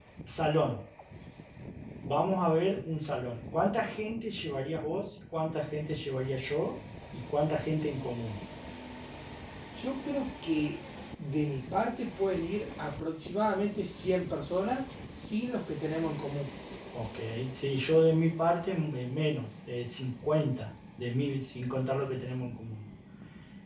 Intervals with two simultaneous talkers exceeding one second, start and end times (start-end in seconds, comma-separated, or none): none